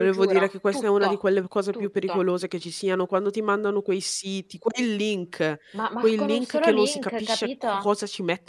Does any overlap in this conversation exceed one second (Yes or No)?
Yes